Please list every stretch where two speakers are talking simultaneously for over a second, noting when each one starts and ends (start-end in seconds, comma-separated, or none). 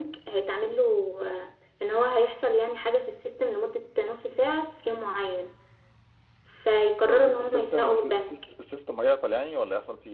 7.1-8.4